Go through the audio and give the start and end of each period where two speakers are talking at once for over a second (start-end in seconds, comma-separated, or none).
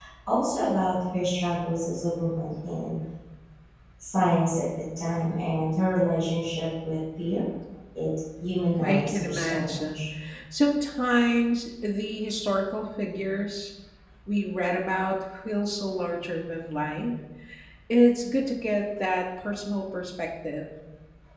8.8-10.0